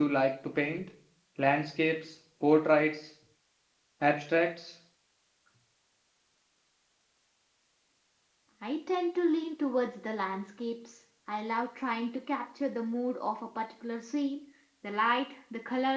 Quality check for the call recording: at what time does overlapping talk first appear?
none

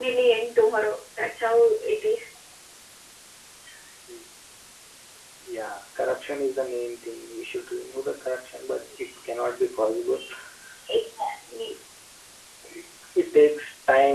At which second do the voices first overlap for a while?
none

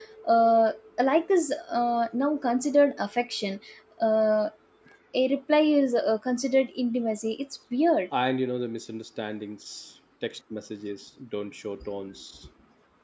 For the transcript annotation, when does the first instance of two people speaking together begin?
none

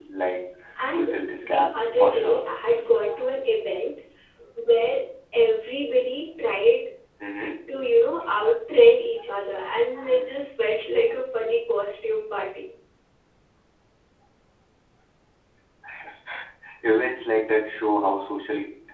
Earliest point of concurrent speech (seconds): 0.9 s

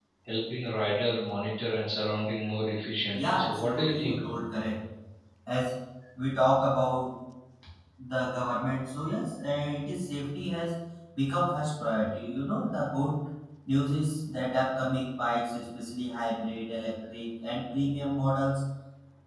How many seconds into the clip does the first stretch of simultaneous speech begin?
3.1 s

